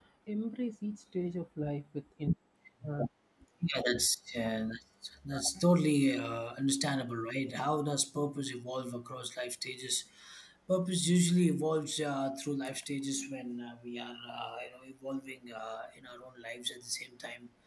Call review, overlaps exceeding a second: none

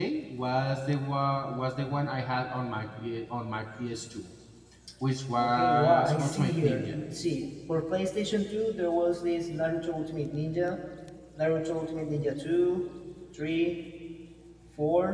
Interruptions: present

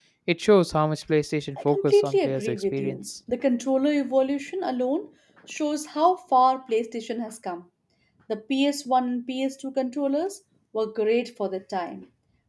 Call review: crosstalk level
present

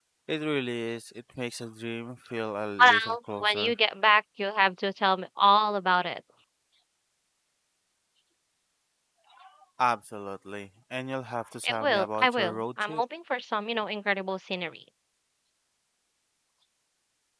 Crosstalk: present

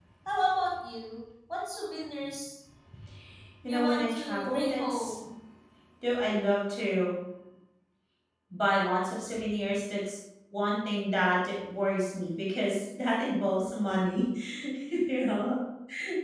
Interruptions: present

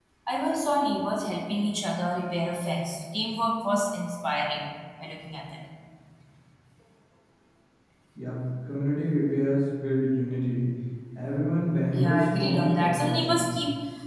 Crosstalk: present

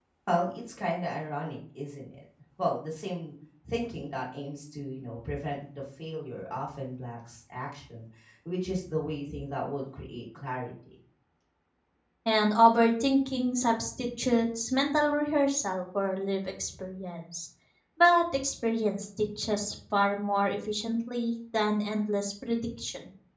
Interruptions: none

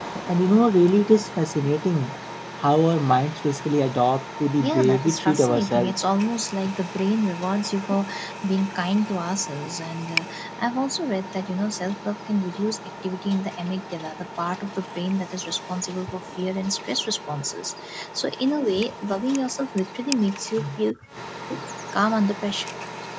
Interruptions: present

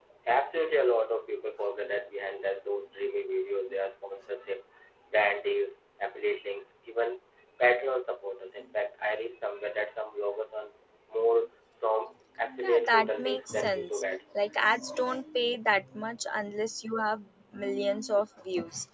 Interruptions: present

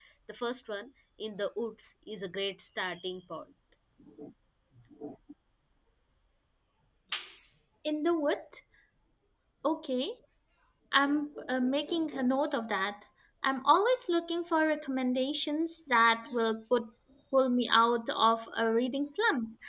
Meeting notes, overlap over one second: none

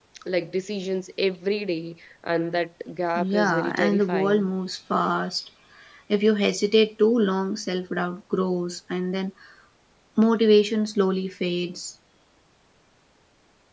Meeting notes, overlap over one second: present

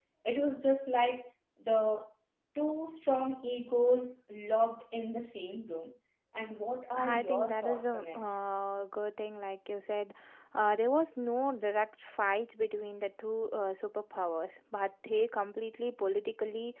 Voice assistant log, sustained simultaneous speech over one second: present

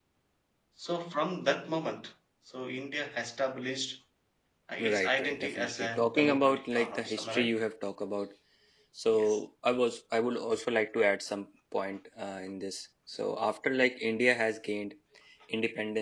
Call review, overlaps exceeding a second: present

